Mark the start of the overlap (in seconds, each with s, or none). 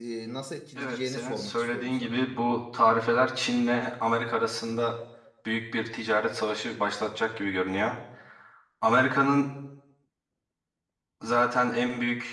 0.8 s